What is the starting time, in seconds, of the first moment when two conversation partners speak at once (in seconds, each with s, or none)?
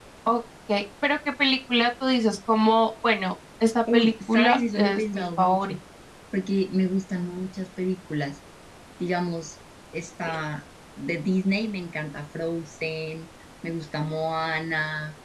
3.9 s